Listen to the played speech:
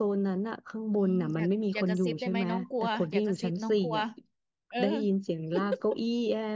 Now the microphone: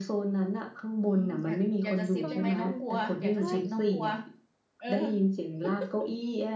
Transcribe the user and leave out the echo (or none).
ตอนกลางคืนใช่